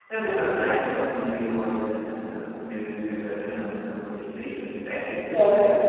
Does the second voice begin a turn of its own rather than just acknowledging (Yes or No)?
Yes